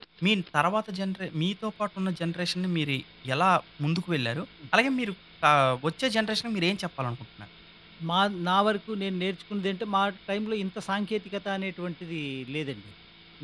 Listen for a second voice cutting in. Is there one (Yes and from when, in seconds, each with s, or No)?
No